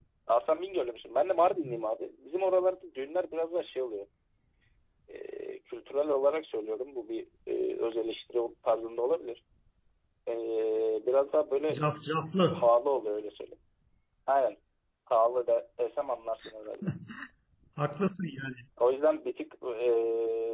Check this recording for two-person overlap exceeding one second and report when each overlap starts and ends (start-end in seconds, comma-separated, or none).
none